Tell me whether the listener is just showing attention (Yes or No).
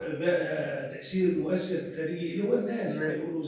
Yes